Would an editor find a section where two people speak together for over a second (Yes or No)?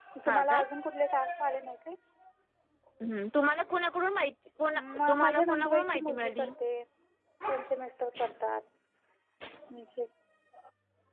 Yes